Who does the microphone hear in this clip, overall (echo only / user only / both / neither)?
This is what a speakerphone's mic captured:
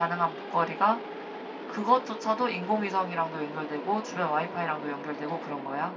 user only